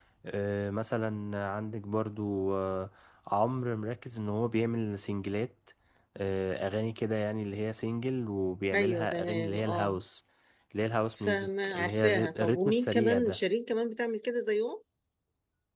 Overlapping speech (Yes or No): Yes